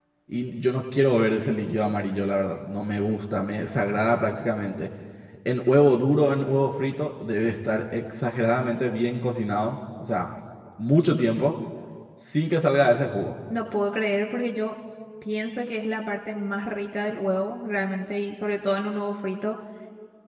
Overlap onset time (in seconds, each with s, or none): none